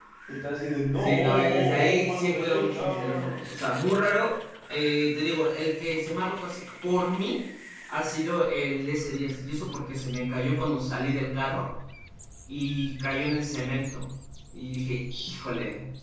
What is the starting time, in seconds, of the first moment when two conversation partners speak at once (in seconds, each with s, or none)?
1.0 s